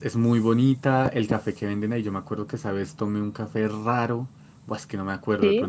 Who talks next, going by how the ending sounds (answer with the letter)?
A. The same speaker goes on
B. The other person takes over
A